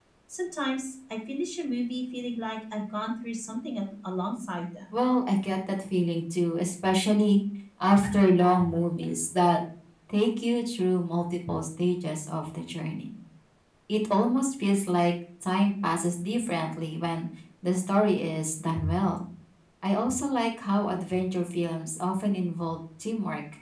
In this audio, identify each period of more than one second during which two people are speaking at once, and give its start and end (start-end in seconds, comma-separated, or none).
none